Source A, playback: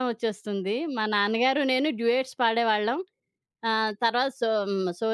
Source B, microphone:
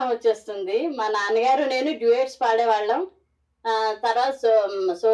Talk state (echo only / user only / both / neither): echo only